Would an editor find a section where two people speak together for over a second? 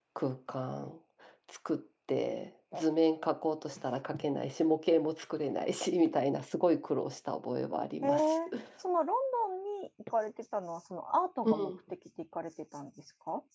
No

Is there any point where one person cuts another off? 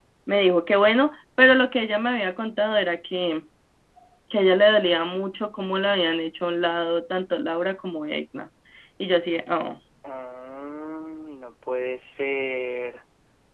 No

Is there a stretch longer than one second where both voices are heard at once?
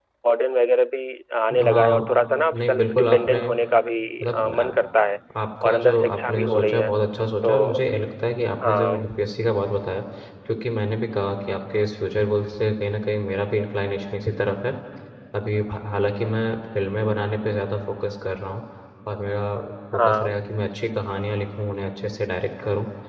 Yes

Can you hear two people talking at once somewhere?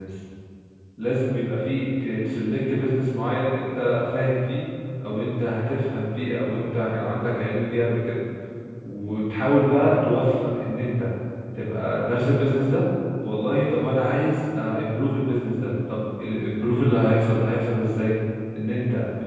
No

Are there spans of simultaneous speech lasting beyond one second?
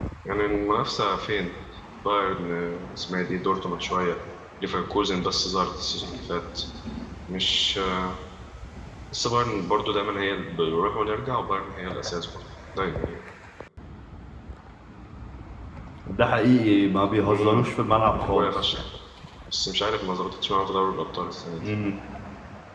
No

